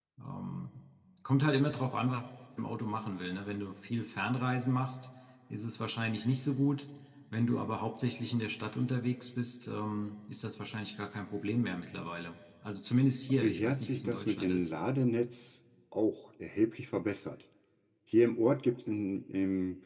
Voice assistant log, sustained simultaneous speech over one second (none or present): present